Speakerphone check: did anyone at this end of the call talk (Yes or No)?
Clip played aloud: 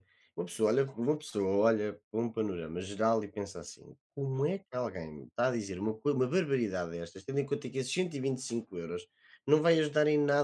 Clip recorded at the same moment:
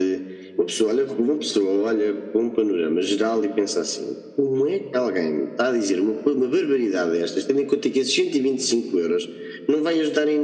No